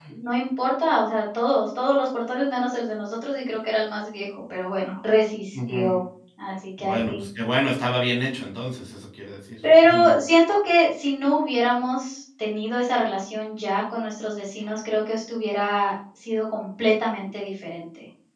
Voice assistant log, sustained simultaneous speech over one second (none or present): none